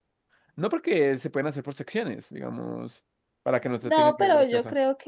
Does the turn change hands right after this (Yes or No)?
Yes